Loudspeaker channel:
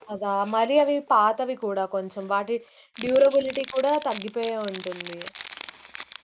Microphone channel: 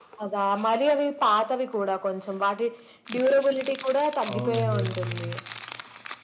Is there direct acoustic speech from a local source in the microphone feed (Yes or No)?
Yes